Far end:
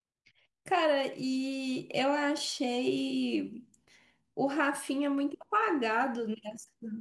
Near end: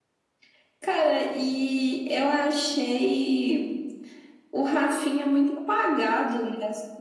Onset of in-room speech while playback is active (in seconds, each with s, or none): none